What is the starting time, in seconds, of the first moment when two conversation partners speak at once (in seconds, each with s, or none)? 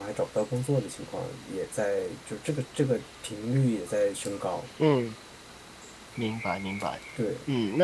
none